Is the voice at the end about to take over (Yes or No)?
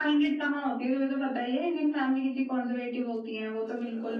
Yes